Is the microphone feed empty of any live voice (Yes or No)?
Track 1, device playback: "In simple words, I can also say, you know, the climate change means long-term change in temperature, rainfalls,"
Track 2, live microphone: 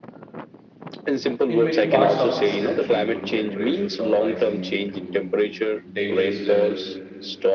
No